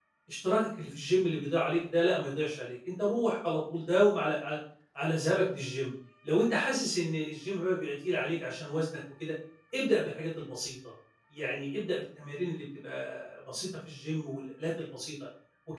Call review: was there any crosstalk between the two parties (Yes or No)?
No